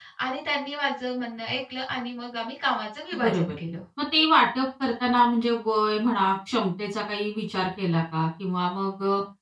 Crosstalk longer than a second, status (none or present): none